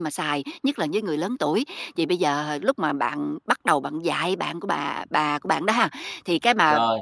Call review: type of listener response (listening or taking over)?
listening